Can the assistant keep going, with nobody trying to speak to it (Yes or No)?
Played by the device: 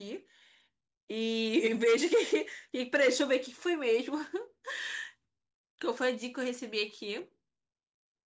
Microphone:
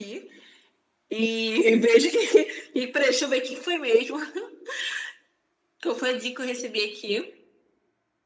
Yes